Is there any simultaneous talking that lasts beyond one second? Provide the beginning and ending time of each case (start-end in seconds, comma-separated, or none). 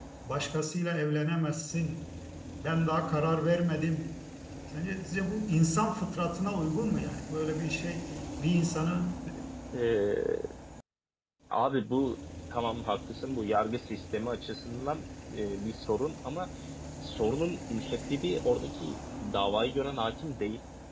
none